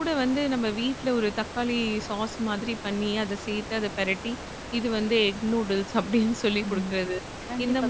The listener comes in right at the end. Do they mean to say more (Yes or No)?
Yes